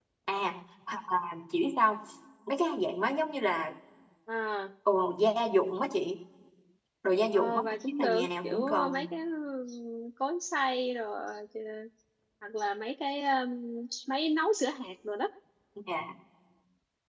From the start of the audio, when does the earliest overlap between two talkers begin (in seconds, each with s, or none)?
7.3 s